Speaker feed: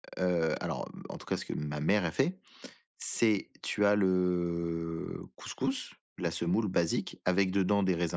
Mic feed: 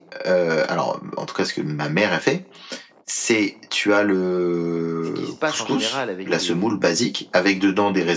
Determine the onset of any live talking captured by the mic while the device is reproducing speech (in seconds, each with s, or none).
5.0 s